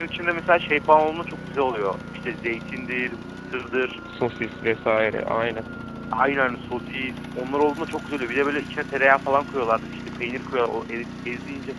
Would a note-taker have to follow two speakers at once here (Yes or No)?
No